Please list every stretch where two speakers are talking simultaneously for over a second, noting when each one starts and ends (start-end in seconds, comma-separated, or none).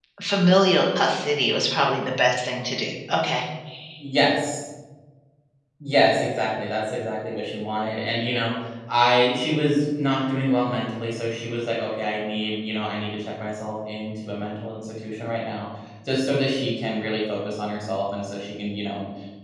none